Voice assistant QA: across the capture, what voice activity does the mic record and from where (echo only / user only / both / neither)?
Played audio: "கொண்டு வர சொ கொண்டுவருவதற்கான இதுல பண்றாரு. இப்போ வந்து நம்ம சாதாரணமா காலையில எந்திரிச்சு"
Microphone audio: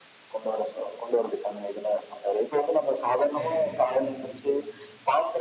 both